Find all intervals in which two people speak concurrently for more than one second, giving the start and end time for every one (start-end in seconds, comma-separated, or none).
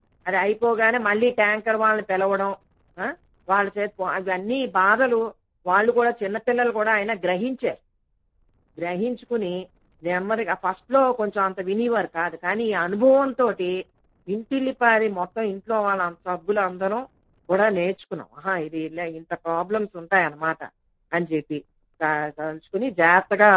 none